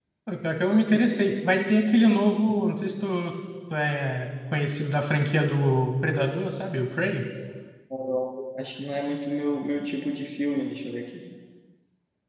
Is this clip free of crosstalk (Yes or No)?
Yes